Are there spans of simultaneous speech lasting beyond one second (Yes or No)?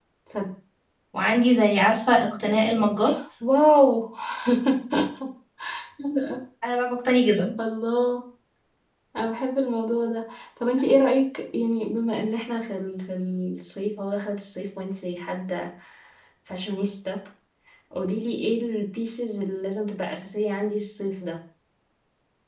No